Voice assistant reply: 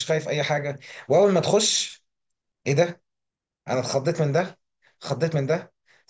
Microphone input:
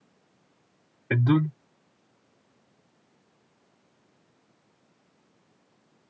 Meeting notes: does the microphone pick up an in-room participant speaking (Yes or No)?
Yes